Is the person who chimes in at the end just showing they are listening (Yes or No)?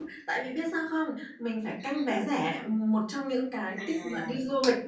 Yes